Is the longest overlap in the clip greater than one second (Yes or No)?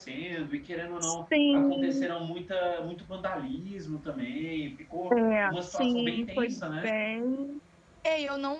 Yes